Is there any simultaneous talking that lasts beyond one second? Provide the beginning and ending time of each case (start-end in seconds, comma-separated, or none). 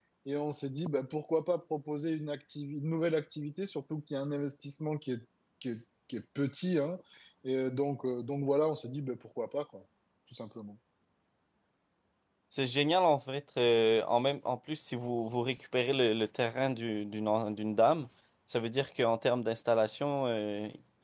none